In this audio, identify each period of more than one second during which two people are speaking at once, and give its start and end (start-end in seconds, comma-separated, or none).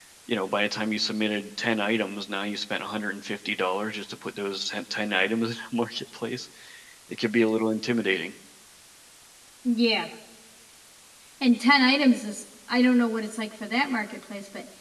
none